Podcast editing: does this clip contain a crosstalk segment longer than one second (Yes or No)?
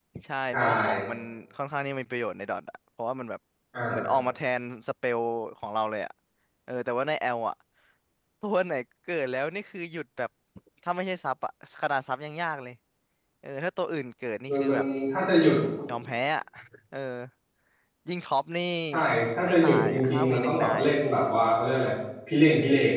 Yes